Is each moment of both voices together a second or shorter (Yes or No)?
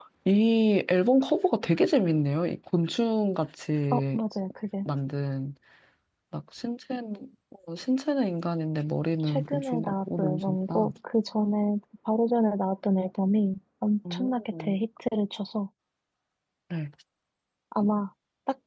No